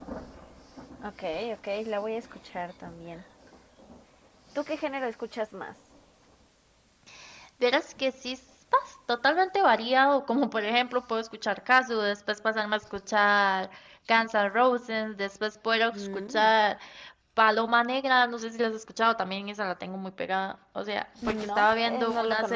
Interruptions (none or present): present